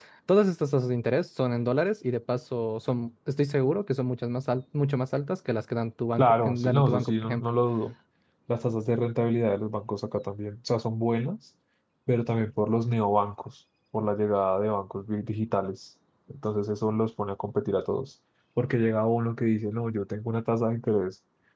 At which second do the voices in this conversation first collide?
6.1 s

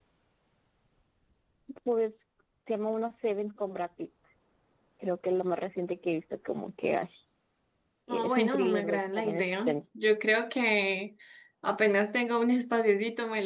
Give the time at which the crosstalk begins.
8.1 s

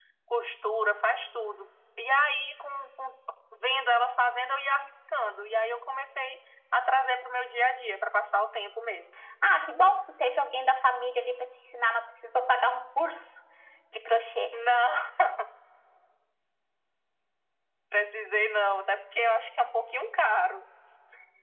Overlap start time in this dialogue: none

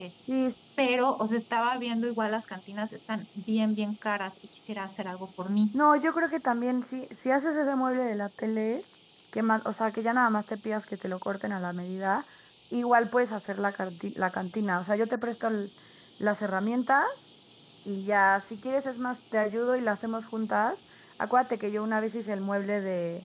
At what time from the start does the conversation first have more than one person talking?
none

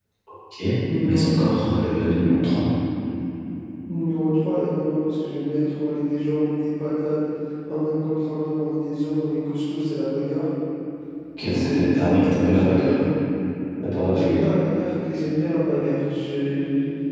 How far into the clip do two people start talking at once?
1.0 s

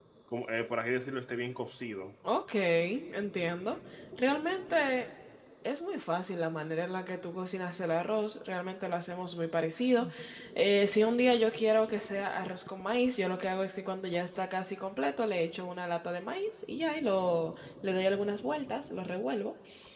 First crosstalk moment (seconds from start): none

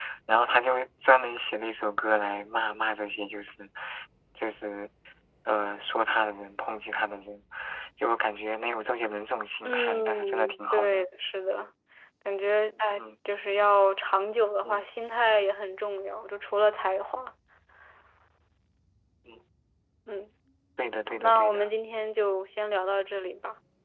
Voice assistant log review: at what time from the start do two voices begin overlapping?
9.6 s

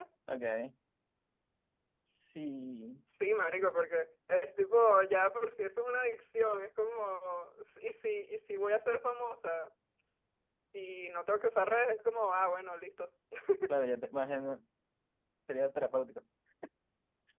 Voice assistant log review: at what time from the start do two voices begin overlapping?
none

